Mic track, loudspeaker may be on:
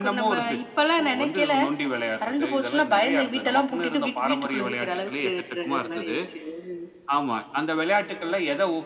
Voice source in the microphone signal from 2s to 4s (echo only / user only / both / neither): echo only